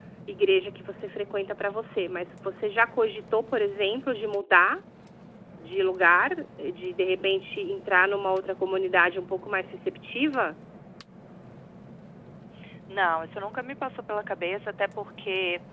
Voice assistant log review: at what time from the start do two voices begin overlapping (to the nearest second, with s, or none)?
none